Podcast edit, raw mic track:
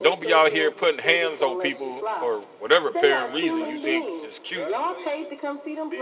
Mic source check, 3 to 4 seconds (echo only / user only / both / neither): both